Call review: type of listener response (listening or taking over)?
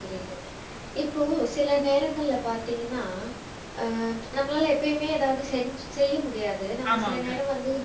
listening